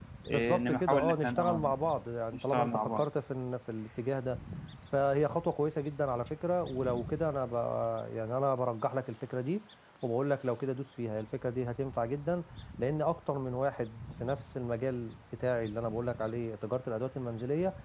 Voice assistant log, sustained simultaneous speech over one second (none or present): present